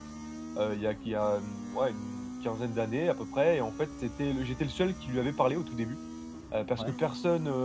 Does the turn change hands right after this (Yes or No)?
No